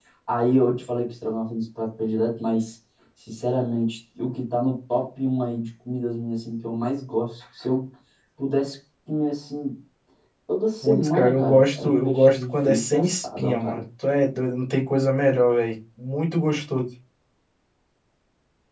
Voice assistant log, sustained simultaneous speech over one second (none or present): present